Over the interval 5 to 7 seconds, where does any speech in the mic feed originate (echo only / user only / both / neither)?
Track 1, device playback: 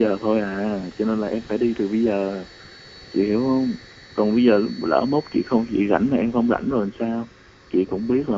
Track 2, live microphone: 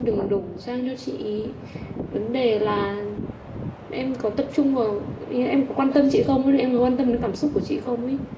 user only